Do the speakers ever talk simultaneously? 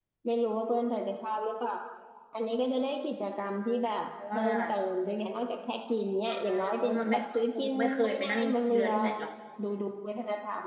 Yes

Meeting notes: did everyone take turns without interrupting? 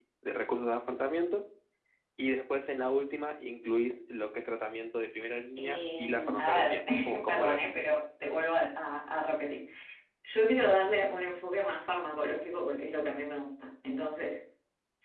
No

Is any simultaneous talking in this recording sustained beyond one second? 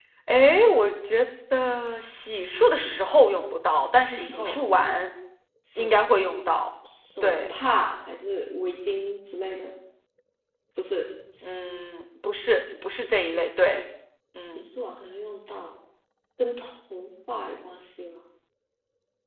No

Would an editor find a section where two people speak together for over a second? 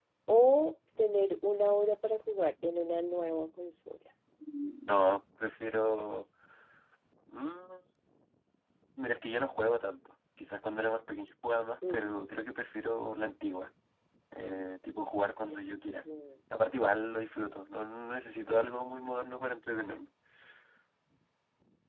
No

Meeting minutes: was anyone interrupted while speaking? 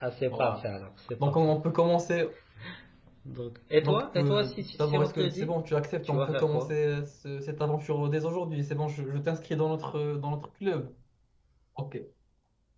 Yes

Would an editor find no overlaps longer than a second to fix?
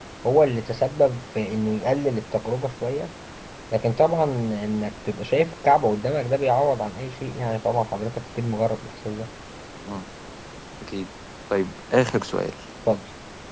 Yes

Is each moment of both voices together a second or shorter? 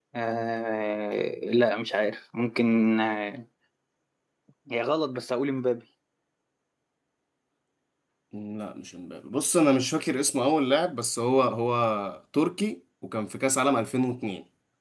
Yes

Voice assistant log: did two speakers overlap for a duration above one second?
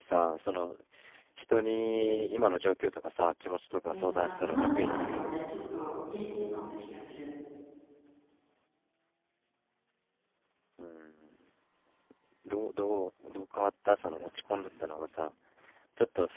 Yes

